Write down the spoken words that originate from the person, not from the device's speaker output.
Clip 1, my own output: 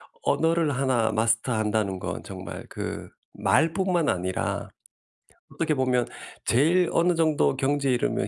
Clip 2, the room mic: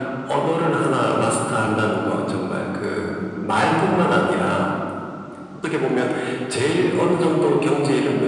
none

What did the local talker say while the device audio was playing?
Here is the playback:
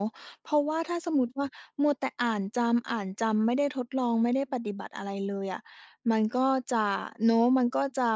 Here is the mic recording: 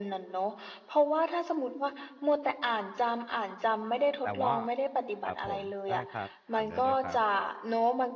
แต่ว่า ครับผม ได้ครับ ถามได้เลยครับ

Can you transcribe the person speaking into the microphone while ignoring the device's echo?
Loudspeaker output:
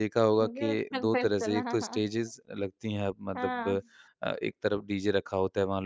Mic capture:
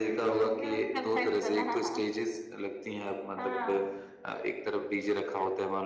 none

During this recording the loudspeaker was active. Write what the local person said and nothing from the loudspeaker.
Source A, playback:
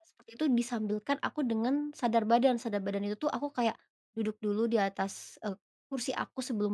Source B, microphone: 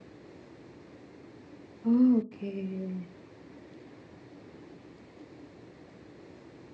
Oke.

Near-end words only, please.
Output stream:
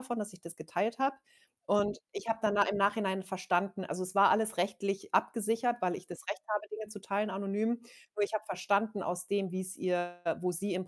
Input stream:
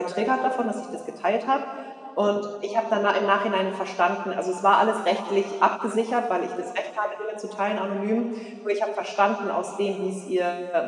none

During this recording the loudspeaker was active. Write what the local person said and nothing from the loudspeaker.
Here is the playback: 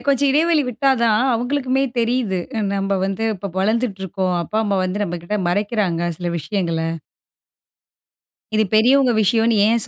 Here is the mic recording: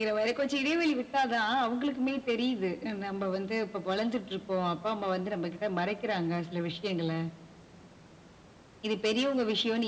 none

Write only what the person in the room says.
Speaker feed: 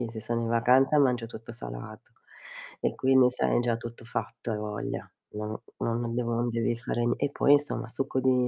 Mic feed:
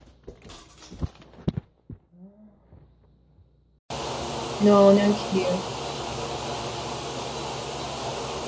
No, neanch'io.

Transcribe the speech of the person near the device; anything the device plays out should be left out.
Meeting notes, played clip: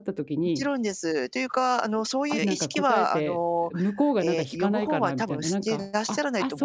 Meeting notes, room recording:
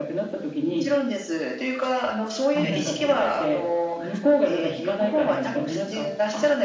うん。

